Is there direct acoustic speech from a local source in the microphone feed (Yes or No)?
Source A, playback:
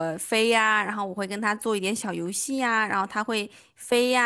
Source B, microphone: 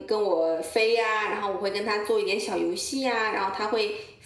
No